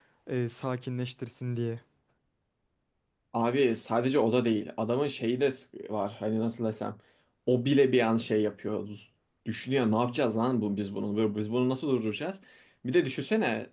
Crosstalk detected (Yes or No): No